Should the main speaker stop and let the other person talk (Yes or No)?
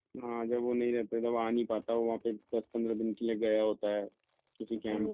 Yes